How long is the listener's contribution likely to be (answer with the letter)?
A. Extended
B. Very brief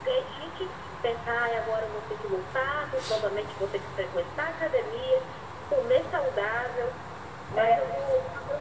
B